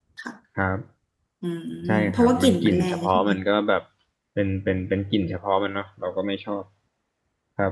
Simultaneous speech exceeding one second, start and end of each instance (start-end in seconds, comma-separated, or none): 2.1-3.3